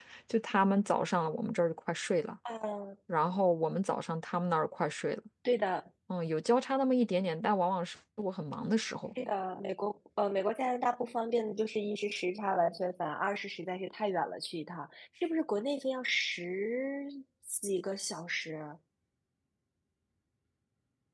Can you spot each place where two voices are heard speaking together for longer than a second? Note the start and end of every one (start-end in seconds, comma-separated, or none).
none